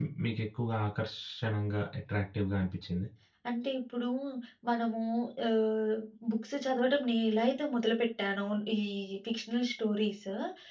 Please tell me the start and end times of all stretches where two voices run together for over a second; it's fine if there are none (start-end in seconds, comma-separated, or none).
none